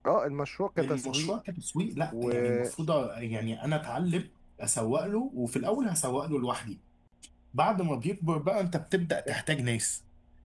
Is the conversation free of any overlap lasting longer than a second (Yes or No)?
Yes